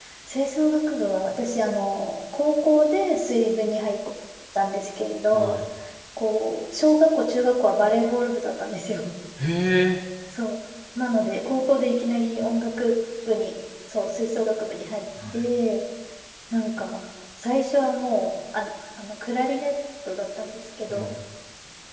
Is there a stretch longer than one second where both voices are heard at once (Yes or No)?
No